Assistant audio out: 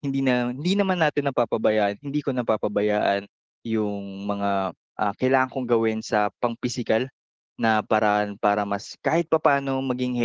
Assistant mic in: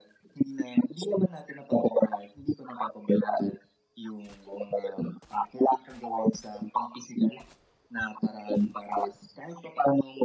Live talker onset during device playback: none

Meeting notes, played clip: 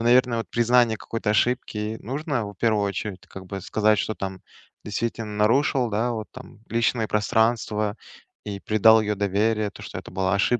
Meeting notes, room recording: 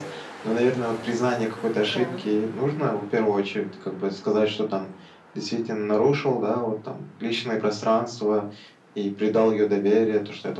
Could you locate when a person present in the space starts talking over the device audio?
1.8 s

